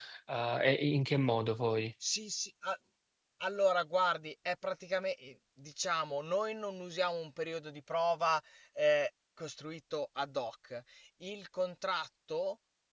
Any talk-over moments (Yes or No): No